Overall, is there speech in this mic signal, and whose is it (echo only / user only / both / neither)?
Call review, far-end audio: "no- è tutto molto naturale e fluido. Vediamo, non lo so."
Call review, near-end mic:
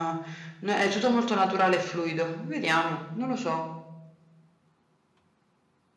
echo only